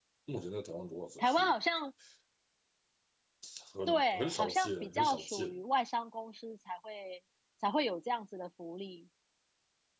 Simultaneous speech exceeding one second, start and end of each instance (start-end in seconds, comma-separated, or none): 3.9-5.5